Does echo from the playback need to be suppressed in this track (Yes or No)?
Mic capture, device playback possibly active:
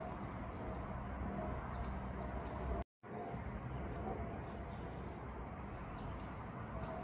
No